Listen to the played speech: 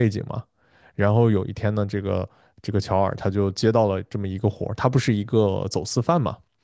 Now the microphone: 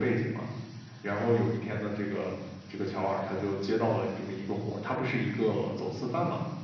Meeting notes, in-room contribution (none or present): none